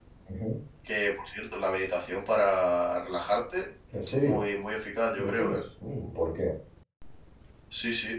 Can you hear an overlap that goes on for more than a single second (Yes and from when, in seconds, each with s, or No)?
No